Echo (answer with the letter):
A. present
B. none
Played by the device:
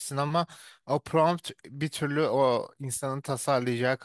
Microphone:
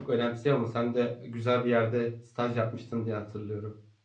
B